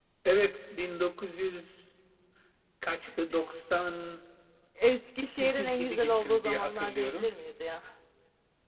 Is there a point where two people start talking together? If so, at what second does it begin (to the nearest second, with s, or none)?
5 s